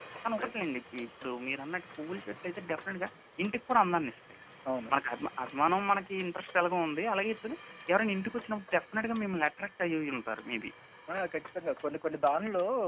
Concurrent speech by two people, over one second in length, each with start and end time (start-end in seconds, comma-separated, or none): none